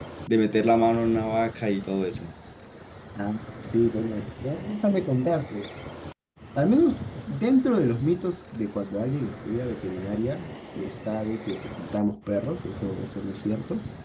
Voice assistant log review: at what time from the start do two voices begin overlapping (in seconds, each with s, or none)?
none